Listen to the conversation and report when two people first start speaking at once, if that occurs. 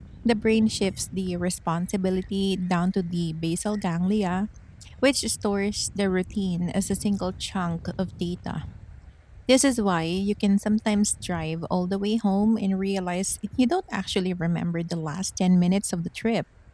none

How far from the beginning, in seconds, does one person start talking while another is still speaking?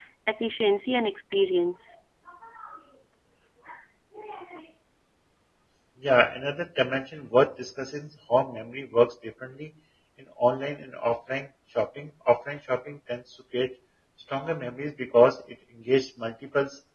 none

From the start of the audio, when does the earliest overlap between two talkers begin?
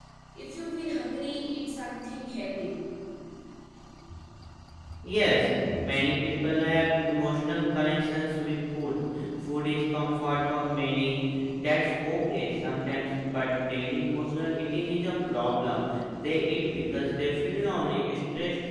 none

